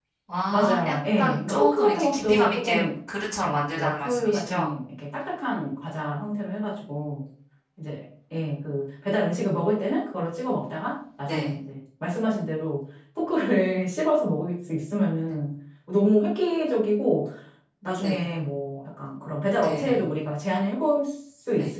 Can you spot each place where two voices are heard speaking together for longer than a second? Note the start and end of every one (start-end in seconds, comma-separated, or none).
0.5-2.8, 3.4-4.7